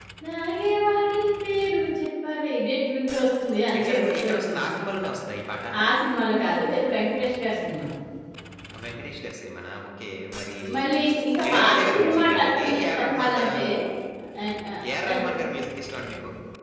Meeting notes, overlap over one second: present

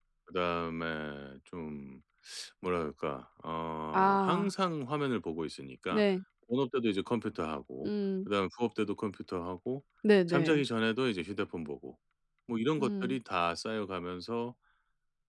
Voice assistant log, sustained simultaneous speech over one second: none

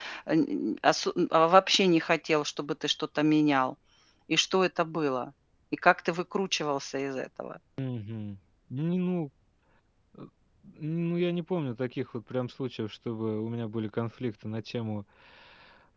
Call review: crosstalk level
none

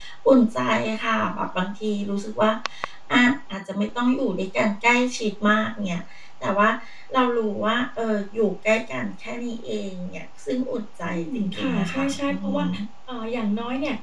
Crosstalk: present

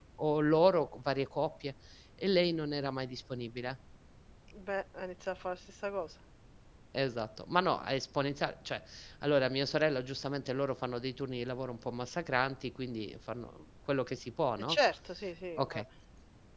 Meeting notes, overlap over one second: none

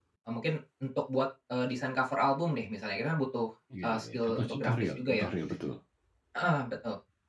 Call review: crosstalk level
present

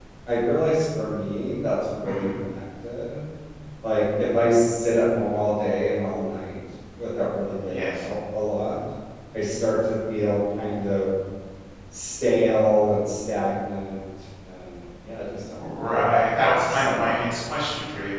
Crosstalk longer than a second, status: present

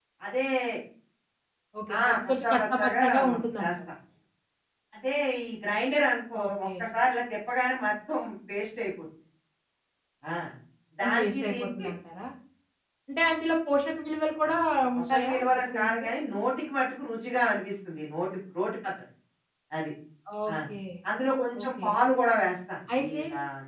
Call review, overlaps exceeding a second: present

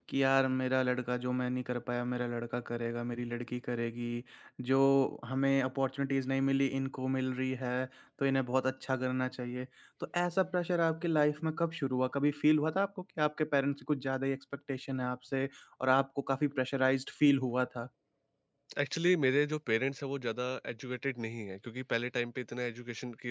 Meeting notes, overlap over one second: none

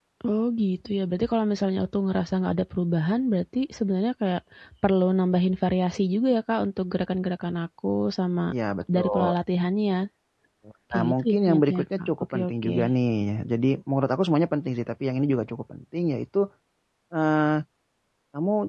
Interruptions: present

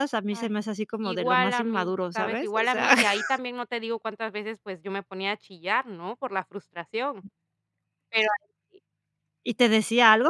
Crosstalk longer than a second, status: present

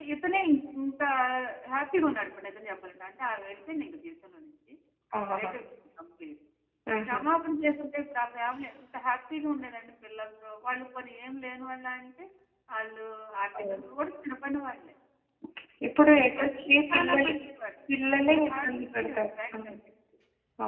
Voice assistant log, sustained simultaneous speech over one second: present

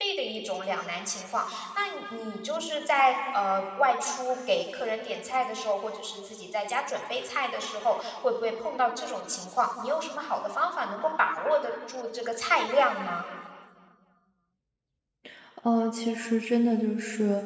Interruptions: none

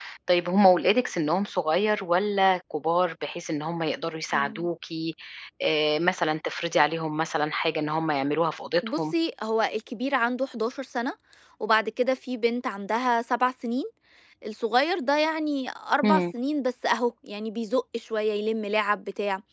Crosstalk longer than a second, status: none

